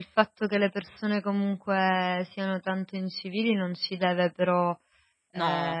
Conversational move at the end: listening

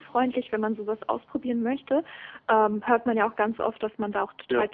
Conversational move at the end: listening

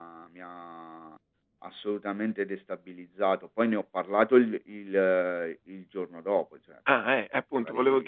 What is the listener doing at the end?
taking over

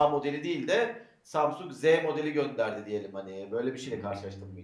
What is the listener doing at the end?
taking over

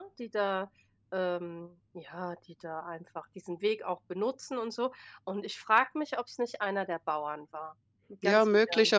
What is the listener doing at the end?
taking over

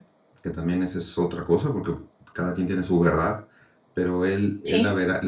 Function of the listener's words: listening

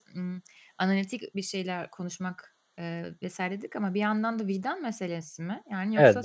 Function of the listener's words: taking over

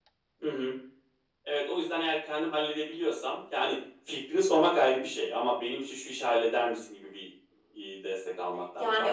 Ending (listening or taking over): taking over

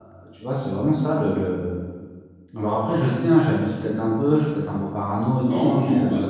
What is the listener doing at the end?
taking over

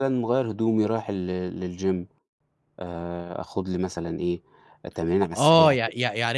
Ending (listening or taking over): taking over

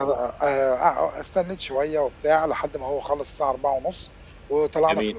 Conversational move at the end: listening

